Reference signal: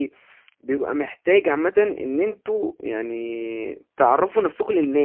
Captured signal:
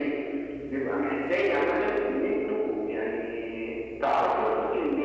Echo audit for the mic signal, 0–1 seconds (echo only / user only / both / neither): echo only